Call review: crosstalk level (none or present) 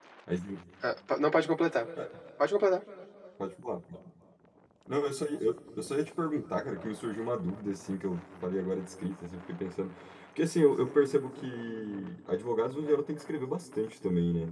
none